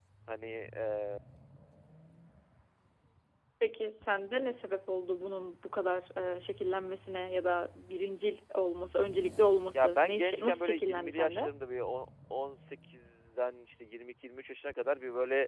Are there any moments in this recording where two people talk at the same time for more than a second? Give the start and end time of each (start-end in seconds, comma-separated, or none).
9.7-11.5